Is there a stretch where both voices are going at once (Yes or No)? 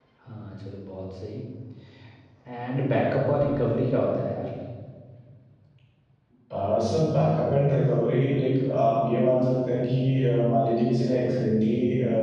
No